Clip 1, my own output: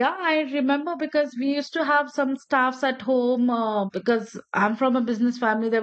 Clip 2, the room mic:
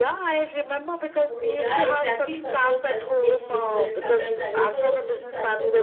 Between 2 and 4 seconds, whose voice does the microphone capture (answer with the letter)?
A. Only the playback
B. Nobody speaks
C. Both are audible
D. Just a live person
C